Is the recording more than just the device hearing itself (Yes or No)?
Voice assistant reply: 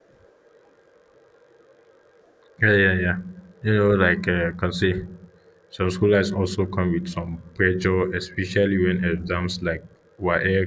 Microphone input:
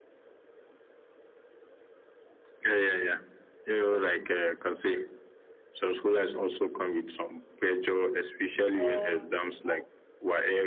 Yes